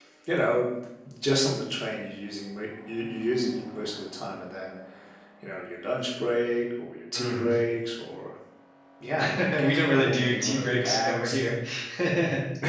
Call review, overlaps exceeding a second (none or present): present